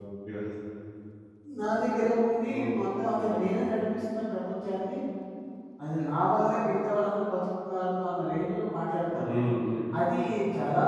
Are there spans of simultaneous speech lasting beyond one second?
No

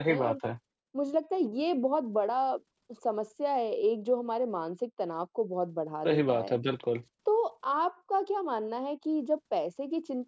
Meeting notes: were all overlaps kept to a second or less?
Yes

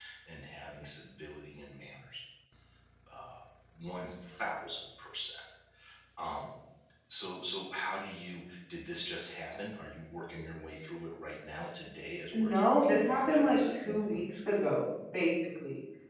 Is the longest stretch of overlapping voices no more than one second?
No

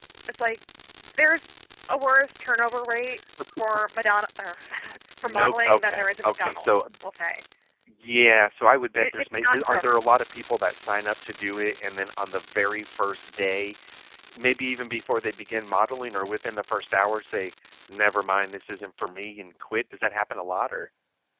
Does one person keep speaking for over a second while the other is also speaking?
Yes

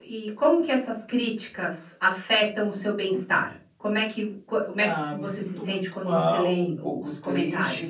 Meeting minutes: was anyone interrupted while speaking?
Yes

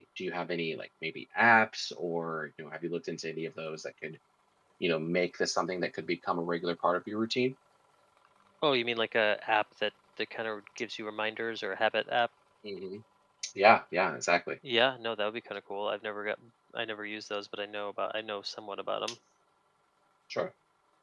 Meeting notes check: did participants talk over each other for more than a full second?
No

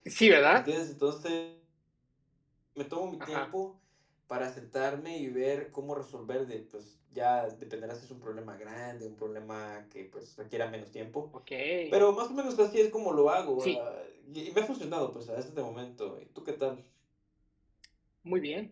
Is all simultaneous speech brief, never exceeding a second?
Yes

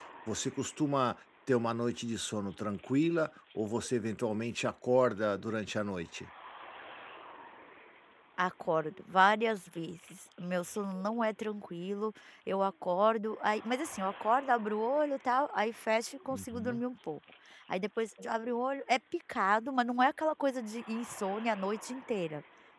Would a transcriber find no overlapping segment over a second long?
Yes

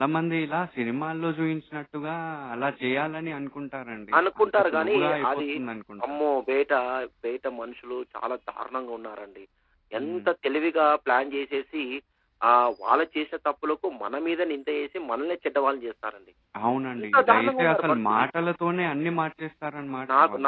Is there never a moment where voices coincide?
No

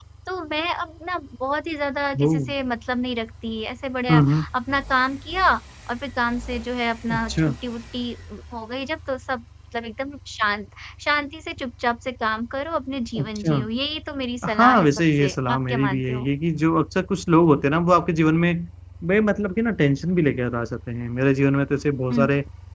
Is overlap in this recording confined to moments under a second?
No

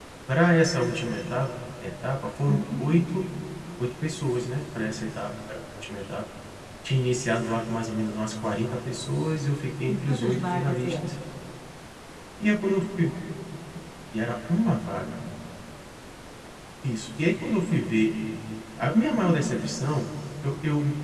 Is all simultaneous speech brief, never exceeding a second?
No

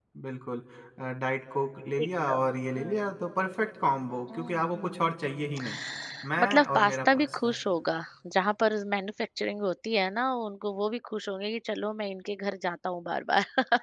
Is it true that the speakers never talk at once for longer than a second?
No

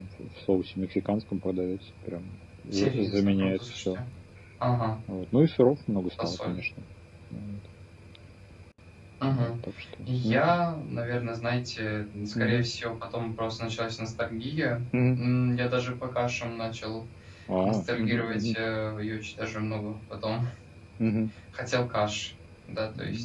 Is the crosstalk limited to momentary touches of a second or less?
No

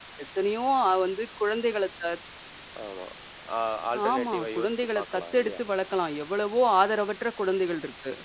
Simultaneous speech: Yes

